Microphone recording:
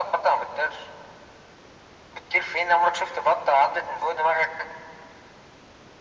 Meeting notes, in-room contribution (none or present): none